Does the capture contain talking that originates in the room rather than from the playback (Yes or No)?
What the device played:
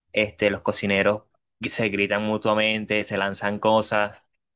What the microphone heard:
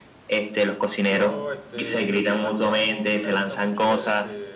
Yes